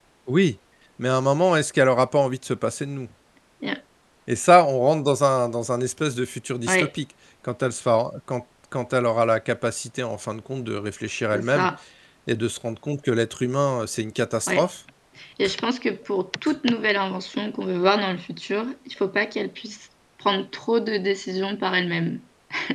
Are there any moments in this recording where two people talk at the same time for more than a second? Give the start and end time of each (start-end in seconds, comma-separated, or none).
none